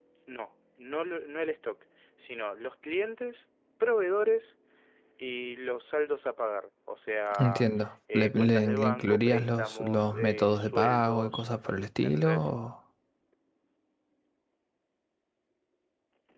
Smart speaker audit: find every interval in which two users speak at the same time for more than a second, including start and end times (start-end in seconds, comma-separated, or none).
8.1-11.4